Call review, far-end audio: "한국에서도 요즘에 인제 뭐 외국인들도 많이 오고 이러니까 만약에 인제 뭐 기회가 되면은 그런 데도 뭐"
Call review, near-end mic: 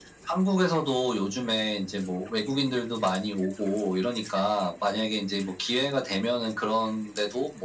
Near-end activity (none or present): none